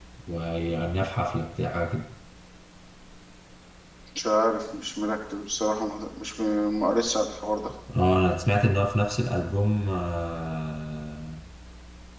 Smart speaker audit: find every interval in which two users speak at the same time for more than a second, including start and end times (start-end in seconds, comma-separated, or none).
none